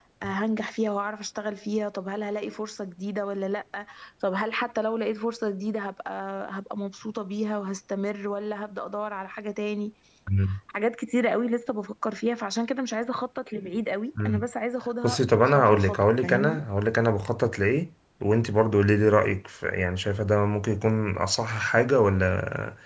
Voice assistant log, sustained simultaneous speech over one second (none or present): present